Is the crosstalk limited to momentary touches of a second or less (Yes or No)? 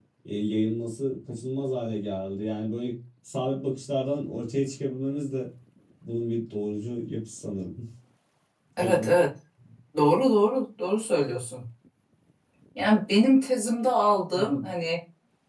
Yes